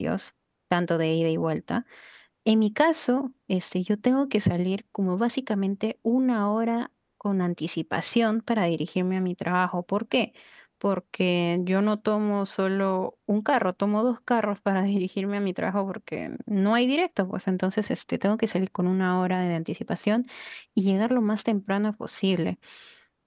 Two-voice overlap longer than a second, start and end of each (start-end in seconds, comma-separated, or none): none